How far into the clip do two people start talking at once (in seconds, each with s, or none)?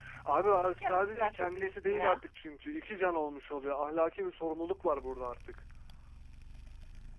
0.5 s